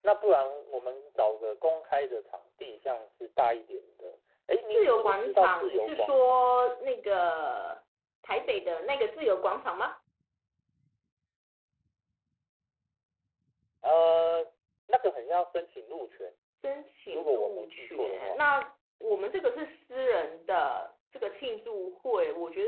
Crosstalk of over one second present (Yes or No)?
Yes